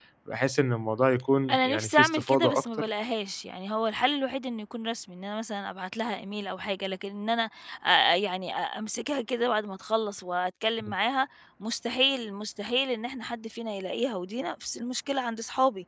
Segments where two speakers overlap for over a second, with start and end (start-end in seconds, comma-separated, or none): 1.5-2.9